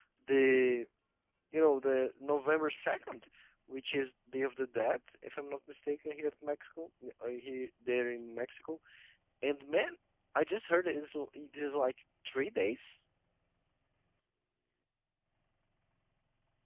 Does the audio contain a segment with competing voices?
No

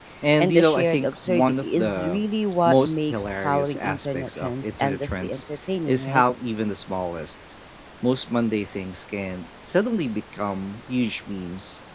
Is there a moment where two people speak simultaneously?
Yes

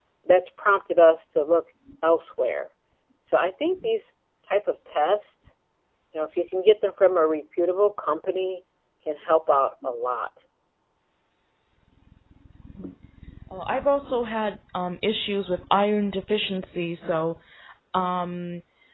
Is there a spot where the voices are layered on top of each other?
No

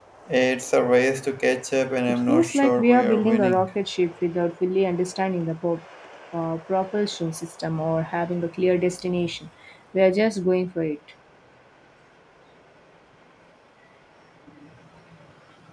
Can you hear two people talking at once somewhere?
Yes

